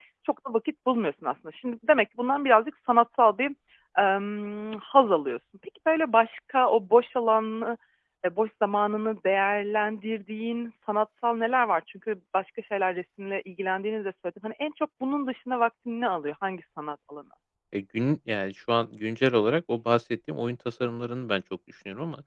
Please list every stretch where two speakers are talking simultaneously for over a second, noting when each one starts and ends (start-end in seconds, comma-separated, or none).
none